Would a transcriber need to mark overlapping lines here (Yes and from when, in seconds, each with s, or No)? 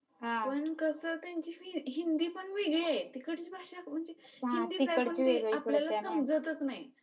Yes, from 4.5 s